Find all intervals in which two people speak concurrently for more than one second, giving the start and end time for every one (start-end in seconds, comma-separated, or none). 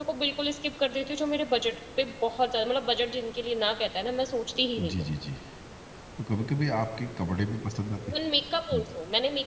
none